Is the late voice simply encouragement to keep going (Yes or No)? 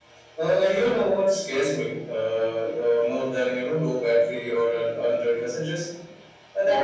Yes